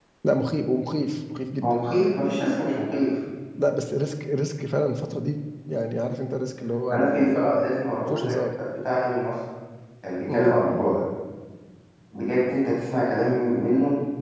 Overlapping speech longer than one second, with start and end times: none

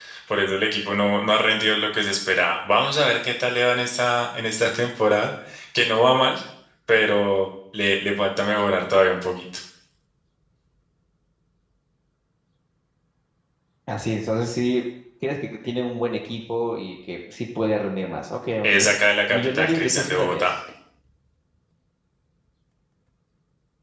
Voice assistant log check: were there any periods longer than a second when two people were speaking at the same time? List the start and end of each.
19.3-20.5

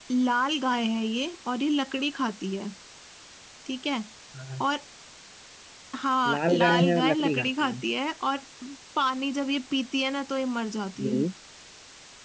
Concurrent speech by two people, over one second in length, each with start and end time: 6.3-7.8

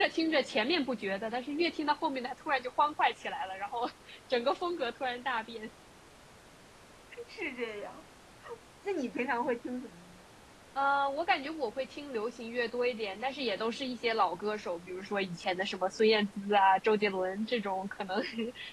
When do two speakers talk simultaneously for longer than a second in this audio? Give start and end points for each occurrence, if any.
none

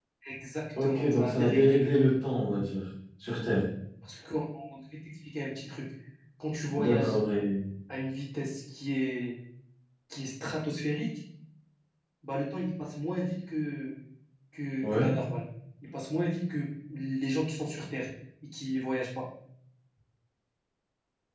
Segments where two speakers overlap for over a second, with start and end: 0.8-2.1

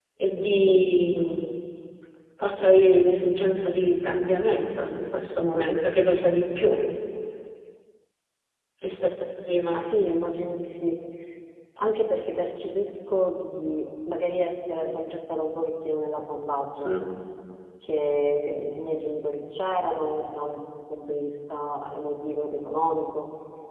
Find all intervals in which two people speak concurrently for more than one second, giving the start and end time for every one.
none

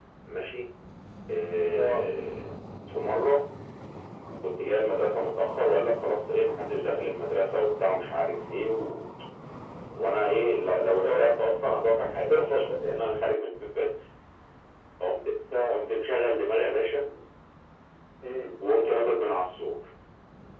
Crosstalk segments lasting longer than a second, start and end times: none

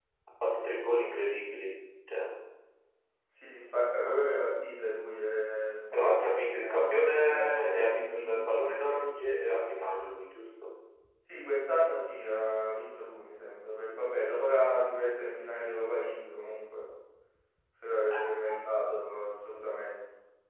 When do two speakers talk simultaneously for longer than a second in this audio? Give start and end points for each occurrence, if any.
5.9-8.6

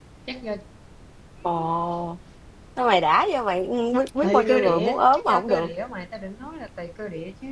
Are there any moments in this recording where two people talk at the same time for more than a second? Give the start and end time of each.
4.2-5.7

